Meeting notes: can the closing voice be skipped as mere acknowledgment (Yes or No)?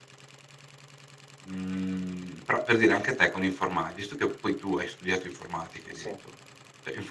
Yes